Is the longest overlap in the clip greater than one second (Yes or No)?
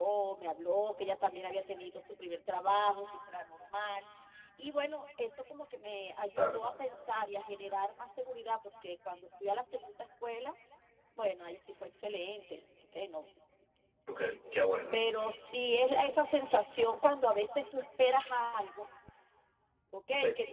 No